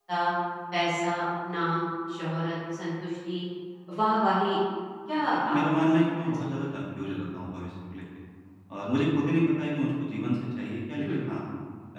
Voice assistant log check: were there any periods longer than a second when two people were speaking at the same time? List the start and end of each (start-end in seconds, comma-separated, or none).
5.2-6.5